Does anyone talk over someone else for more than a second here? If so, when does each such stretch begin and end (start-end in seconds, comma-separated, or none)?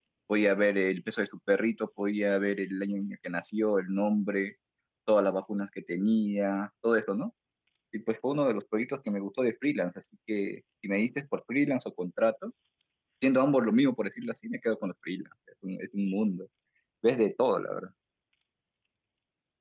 none